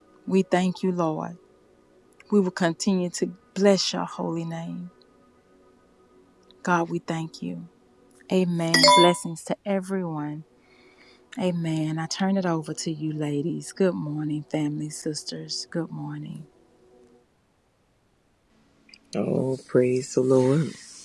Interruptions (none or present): none